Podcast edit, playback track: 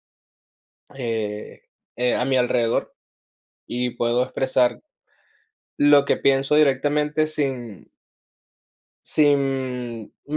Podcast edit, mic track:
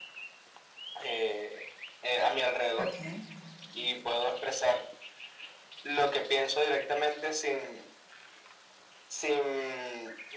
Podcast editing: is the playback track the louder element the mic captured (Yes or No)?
Yes